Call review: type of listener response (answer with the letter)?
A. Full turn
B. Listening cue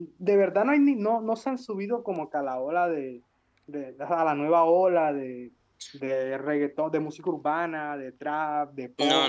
A